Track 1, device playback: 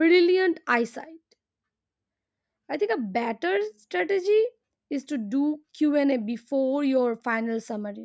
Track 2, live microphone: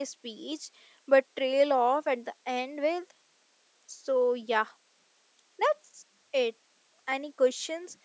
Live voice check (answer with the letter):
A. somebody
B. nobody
A